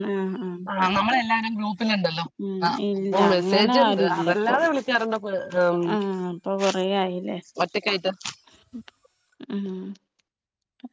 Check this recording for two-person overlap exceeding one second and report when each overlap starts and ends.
3.3-4.6

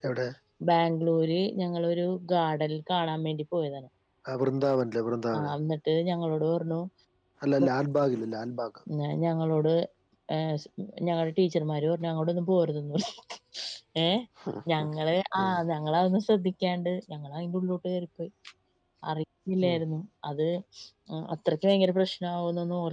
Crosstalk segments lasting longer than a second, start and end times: none

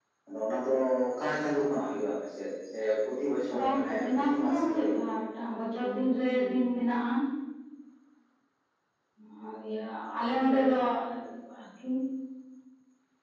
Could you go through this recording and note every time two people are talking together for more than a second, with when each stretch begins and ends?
3.6-5.0

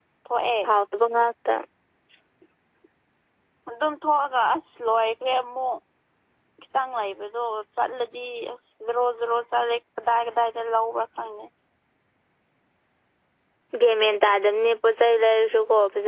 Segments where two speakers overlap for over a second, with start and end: none

